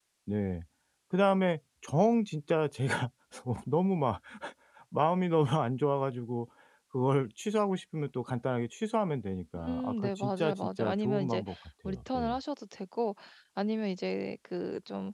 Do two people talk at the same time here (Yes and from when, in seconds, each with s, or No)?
Yes, from 9.6 s